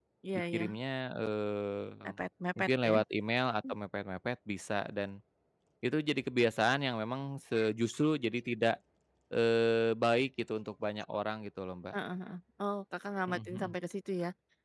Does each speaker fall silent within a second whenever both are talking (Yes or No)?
Yes